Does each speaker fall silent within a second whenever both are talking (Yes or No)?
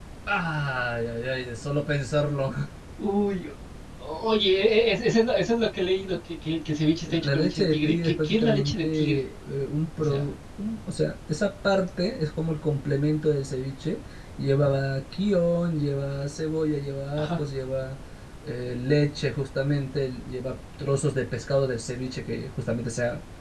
No